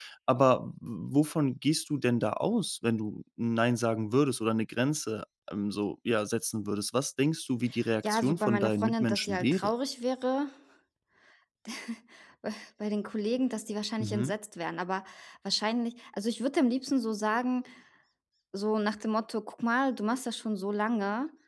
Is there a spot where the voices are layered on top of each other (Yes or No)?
Yes